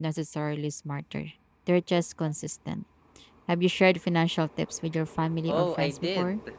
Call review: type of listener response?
taking over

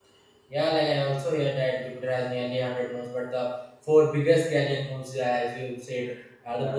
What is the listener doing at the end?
listening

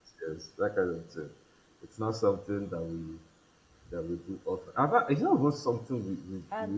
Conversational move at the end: taking over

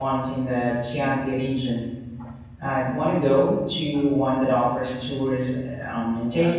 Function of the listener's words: taking over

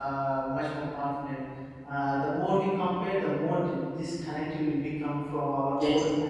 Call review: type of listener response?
listening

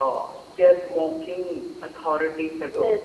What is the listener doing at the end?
taking over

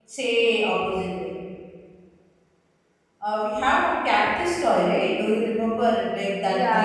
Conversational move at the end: taking over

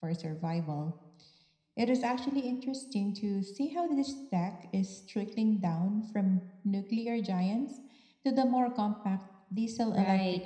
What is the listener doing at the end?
taking over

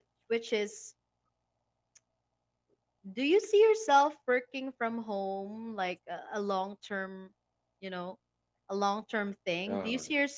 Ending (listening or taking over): listening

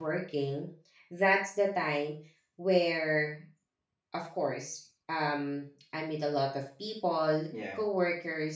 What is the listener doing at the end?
listening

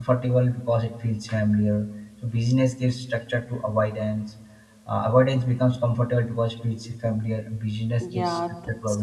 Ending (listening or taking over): taking over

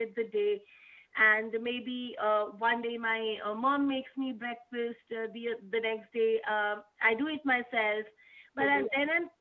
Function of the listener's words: listening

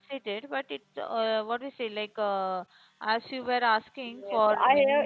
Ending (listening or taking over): taking over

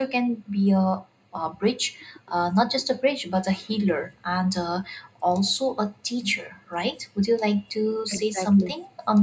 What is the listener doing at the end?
listening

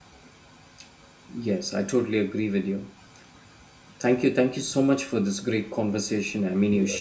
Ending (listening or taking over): taking over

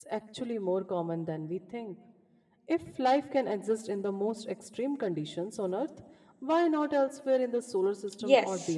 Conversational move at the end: taking over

